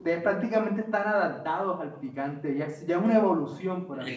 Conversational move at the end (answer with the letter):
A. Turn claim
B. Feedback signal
A